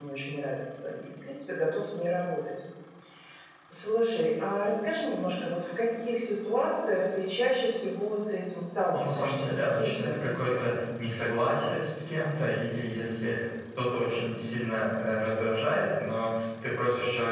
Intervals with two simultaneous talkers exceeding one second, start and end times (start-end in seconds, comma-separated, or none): 8.9-10.6